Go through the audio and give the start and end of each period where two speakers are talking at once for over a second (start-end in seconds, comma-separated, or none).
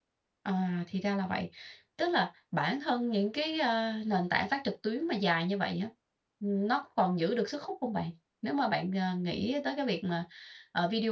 none